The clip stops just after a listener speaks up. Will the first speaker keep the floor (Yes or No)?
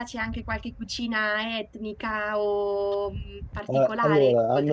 No